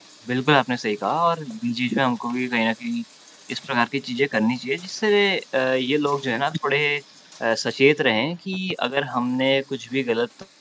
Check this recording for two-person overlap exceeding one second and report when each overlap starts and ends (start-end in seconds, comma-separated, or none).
none